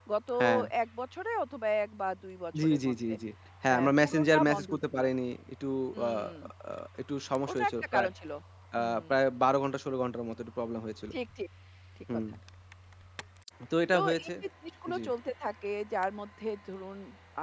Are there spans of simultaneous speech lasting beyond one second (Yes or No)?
Yes